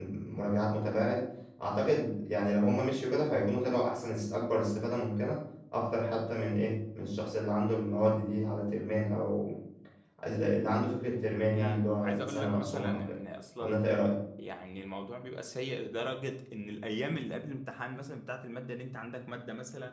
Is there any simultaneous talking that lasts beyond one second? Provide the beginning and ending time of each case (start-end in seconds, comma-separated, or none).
11.5-13.2